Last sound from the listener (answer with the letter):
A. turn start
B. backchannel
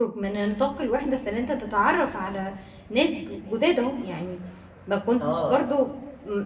B